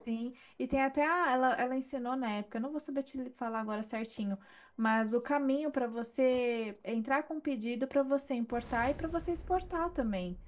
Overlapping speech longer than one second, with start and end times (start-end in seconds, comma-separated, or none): none